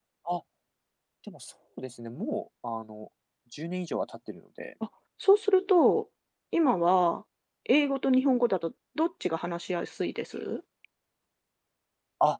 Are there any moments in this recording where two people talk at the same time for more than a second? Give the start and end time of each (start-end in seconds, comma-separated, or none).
none